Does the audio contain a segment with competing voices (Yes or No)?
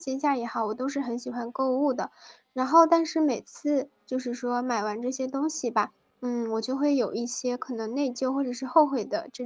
No